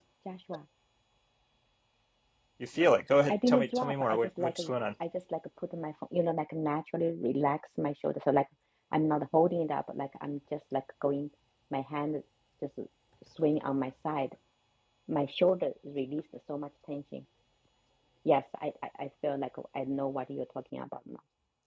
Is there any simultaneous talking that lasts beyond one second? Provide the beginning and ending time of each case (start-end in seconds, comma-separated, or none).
3.3-4.5